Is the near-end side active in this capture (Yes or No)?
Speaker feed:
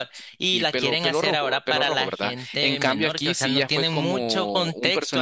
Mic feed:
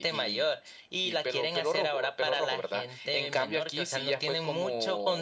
No